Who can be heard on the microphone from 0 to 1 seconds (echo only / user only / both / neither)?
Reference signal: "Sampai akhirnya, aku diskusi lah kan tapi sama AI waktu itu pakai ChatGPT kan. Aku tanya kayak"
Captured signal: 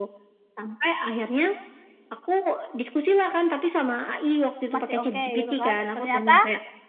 echo only